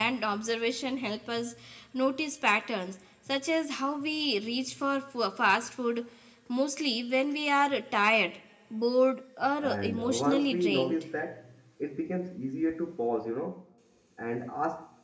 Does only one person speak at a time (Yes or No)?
No